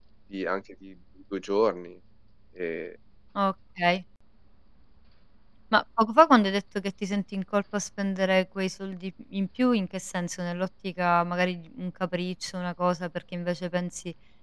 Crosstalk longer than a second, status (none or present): none